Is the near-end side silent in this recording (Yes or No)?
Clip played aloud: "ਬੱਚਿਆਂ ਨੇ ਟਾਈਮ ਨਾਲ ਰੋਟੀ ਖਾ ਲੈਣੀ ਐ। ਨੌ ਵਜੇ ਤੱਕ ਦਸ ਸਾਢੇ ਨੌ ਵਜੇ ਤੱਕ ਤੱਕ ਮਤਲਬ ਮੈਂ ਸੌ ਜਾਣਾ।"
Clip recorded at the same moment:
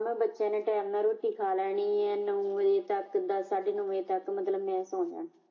Yes